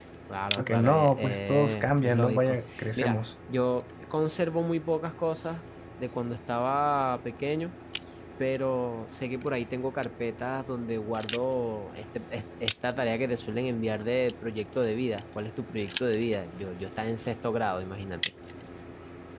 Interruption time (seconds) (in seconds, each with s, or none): 0.6 s